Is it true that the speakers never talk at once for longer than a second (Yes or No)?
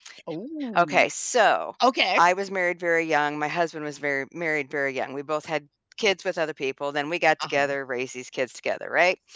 Yes